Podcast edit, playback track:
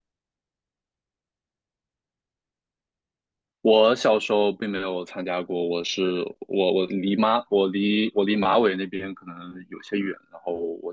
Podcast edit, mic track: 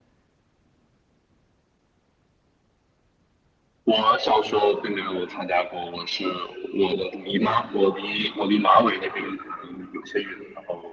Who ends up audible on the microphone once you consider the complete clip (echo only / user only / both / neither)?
echo only